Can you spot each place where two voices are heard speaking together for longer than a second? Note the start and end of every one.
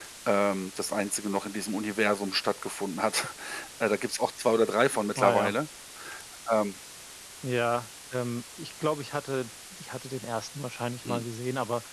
none

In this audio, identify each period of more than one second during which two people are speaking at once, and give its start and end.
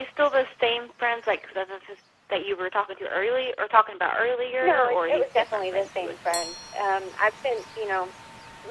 4.6-6.3

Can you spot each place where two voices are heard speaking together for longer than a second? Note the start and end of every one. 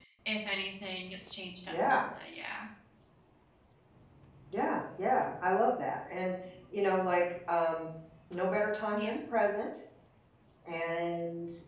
none

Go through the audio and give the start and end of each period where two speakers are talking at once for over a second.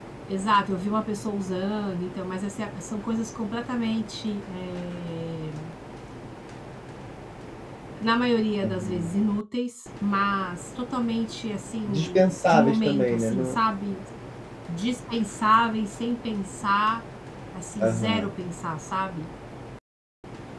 11.9-13.6

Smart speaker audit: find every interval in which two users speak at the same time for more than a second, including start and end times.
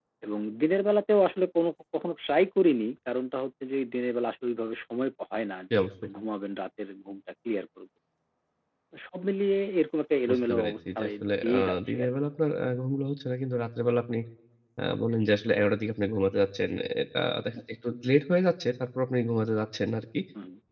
10.3-12.1

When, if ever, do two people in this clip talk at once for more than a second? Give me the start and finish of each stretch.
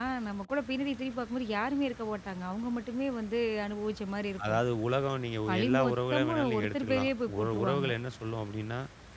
5.5-7.9

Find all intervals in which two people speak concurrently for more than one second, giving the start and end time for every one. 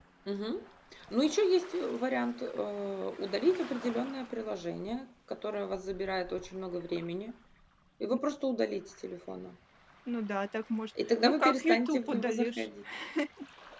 11.2-12.7

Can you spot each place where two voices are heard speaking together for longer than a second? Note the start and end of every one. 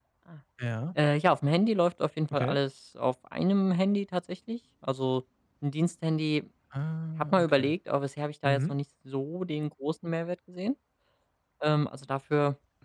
none

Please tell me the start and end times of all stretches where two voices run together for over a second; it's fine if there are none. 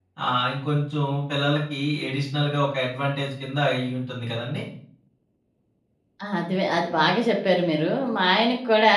none

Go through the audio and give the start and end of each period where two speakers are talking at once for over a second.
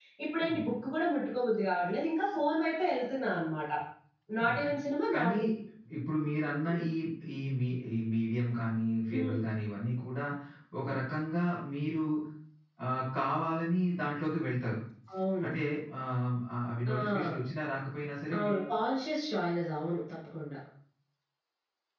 none

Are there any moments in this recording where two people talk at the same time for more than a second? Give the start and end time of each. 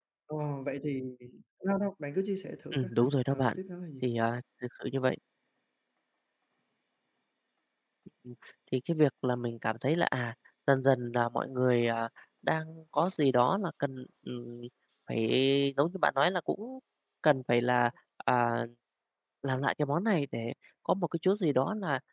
none

